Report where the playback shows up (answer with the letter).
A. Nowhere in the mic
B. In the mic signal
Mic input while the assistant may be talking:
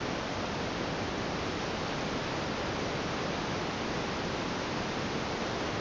A